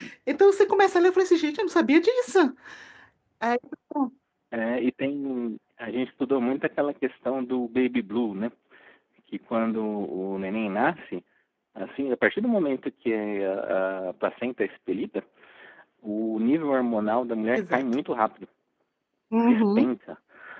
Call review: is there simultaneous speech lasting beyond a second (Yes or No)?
No